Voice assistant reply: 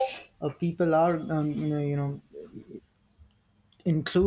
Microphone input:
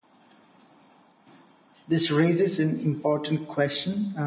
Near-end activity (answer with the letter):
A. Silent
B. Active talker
B